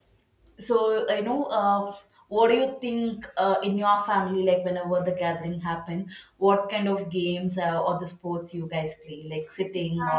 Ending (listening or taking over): taking over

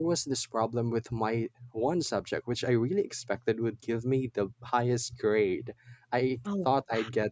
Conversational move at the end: listening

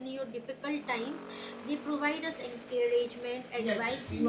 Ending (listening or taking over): taking over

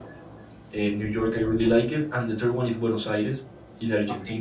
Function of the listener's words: listening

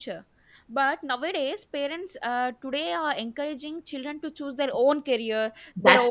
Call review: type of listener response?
listening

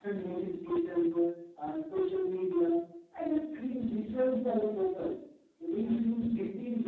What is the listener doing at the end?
listening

